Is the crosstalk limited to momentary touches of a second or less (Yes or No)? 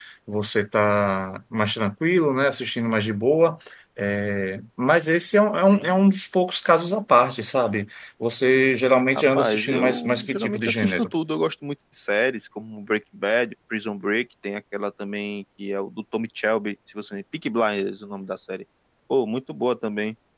No